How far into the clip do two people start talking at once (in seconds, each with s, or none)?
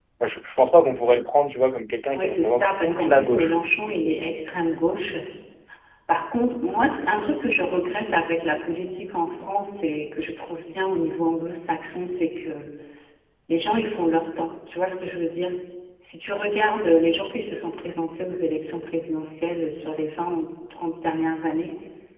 2.2 s